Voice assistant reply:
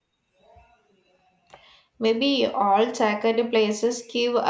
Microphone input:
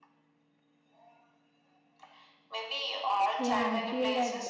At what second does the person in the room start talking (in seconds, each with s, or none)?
3.4 s